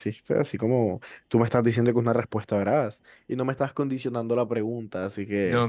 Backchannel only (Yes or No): No